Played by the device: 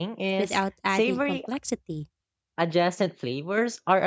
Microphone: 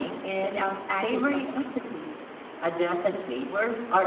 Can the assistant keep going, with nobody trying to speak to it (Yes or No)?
Yes